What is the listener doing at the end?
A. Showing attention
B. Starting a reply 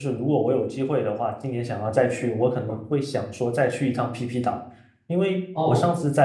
A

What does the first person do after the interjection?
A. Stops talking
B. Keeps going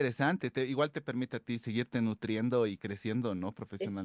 A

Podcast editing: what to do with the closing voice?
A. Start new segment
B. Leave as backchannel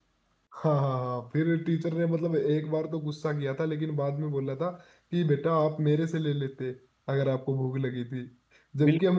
B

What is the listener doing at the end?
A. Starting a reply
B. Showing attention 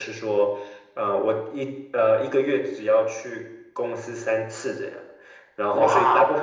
B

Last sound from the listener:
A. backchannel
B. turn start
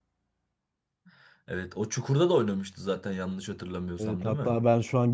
B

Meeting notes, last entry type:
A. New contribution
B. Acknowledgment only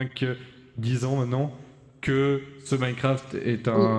A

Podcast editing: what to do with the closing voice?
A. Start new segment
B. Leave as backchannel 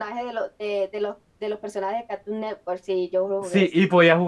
A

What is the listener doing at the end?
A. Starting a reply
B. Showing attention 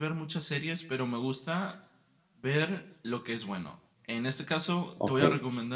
B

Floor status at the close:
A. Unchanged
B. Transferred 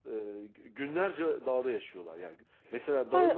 B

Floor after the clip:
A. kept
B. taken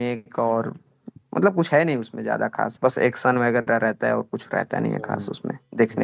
B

